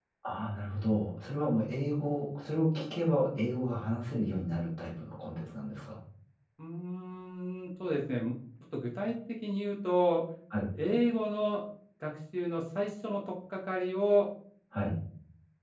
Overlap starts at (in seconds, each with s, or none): none